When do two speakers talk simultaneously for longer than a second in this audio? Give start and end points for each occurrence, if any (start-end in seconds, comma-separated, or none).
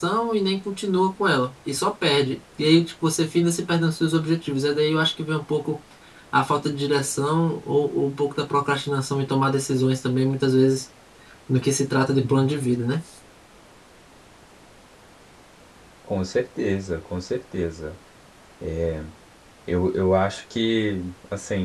none